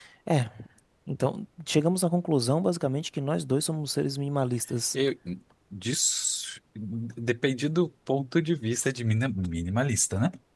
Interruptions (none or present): none